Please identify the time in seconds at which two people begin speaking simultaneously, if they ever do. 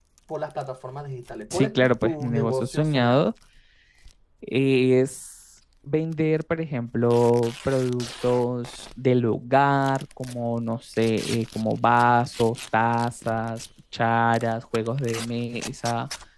1.5 s

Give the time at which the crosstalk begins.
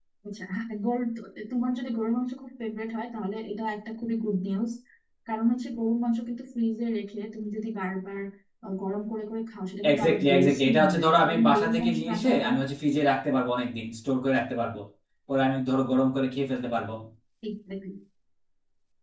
9.8 s

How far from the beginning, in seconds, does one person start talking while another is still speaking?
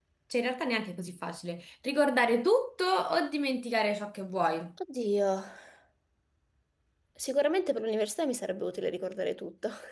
none

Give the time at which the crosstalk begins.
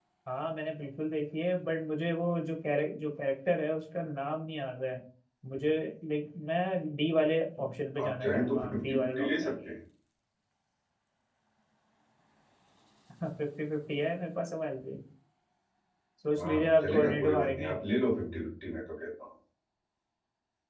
8.0 s

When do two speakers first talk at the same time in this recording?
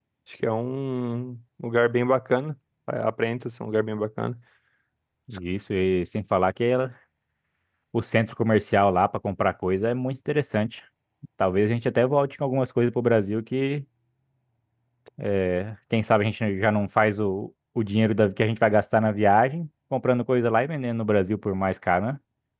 none

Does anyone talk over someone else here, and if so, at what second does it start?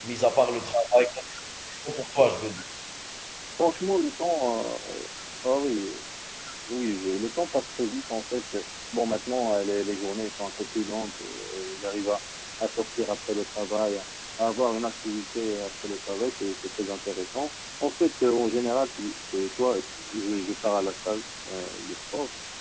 none

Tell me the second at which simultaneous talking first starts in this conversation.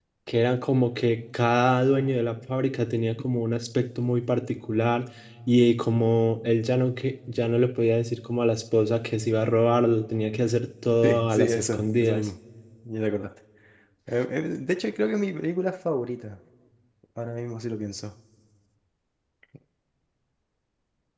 11.0 s

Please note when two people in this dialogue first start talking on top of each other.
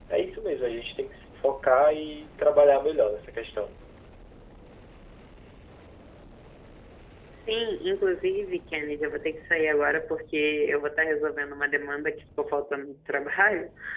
none

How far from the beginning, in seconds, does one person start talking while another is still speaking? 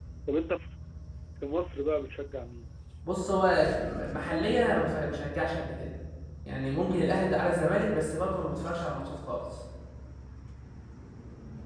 none

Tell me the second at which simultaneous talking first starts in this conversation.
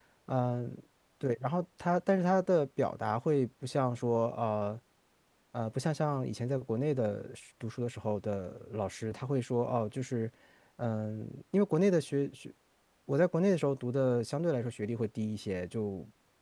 none

